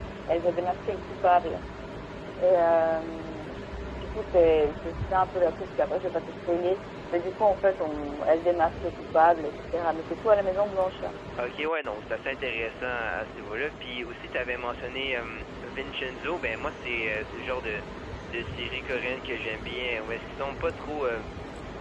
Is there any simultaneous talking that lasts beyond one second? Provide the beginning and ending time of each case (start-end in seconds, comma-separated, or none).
none